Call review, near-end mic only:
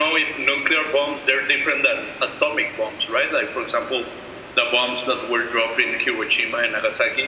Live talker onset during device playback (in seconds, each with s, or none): none